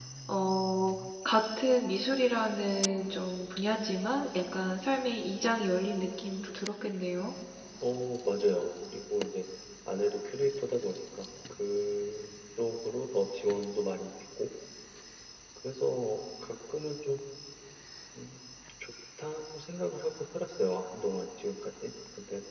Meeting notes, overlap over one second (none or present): none